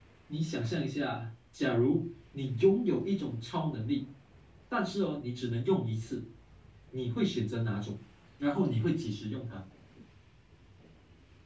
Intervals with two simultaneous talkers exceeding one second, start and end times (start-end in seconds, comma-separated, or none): none